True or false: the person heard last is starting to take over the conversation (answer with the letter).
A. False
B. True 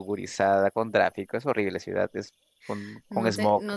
B